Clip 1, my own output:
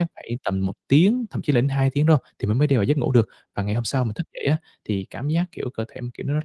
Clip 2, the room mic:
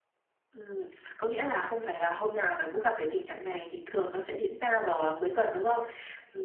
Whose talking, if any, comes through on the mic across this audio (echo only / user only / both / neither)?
user only